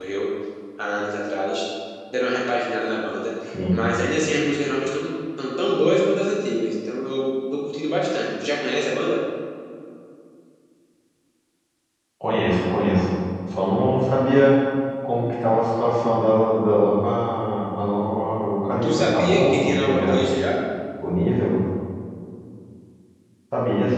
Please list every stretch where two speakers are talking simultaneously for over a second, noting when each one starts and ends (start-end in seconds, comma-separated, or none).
18.8-20.2